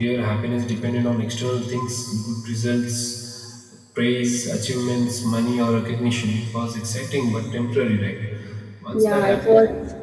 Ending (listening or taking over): taking over